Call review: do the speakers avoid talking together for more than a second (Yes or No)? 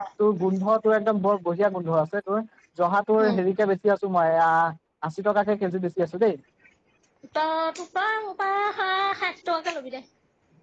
Yes